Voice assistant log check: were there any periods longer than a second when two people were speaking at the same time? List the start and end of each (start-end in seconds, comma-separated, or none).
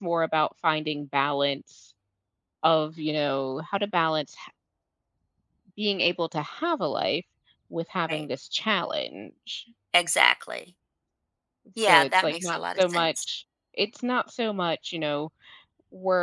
11.9-13.2